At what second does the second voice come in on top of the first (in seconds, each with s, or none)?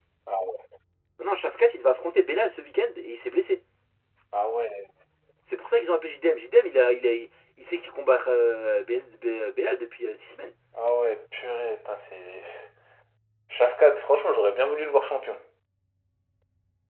none